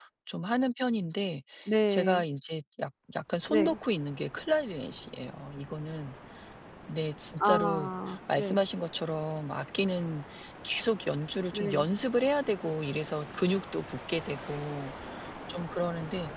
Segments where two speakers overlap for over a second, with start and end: none

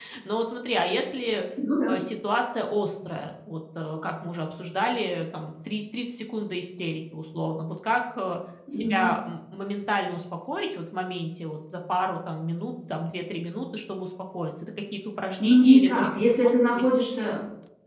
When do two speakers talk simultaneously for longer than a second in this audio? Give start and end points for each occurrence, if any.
15.4-16.8

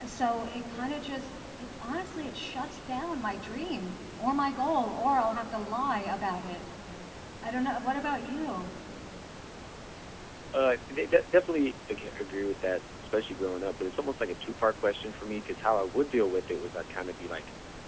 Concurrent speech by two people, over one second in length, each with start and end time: none

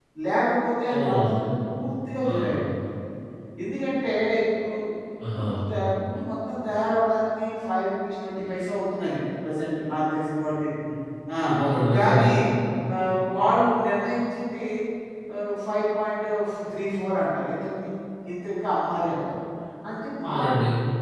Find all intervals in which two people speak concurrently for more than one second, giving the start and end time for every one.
none

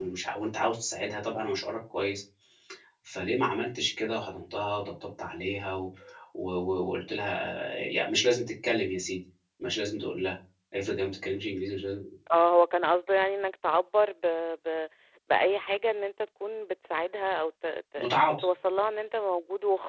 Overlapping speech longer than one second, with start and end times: none

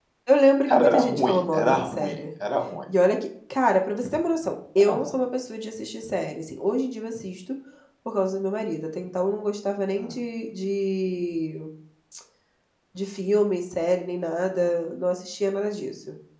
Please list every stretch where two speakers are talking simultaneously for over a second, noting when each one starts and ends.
0.7-2.1

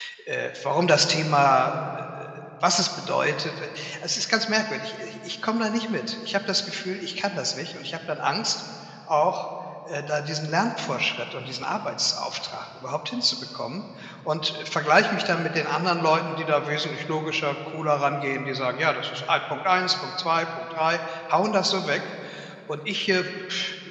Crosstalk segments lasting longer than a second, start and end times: none

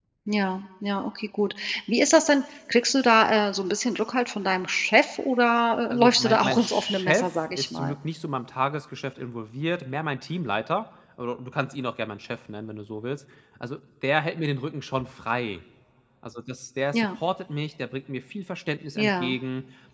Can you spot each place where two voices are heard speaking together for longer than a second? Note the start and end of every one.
5.8-7.9

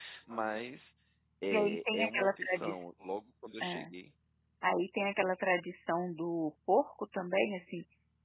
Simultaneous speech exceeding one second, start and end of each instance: 1.5-2.7

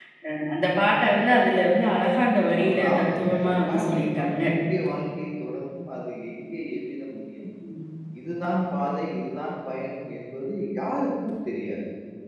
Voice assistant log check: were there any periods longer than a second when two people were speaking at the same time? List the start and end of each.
2.6-4.4

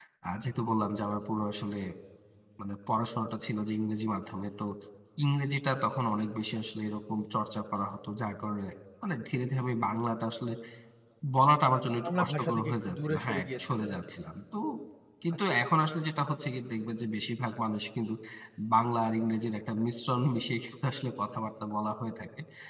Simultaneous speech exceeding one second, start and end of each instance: 12.0-14.0

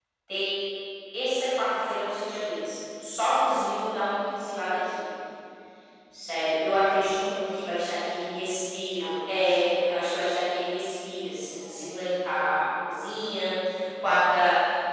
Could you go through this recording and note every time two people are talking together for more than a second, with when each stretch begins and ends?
9.0-10.3

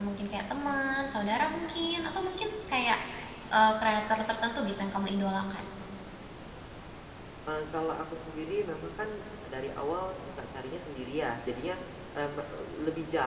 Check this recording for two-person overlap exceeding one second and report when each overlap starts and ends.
none

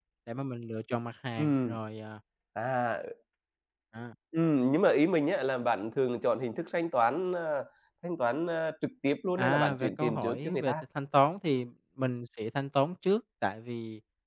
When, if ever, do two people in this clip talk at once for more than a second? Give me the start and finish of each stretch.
9.4-10.7

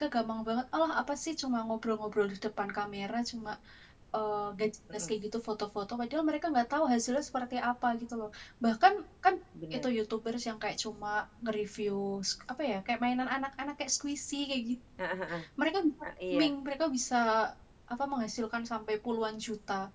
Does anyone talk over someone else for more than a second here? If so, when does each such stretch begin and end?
none

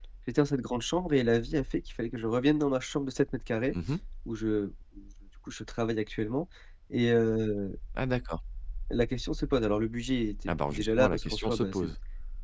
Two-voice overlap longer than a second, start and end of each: 10.7-11.9

